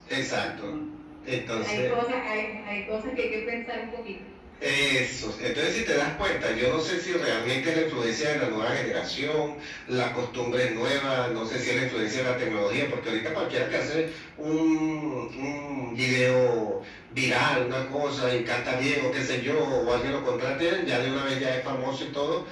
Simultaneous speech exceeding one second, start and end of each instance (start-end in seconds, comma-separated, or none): none